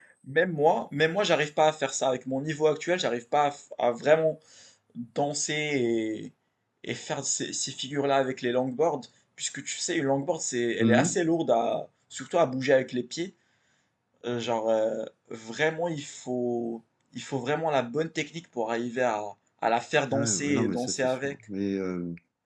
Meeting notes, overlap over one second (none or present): present